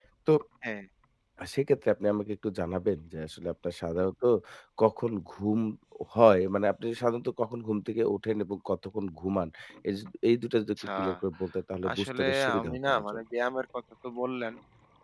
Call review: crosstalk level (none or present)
present